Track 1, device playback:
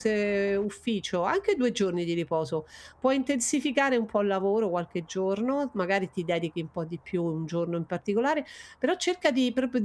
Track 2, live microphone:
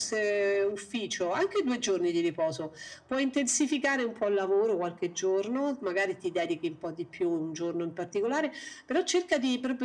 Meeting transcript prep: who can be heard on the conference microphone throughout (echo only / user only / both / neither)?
echo only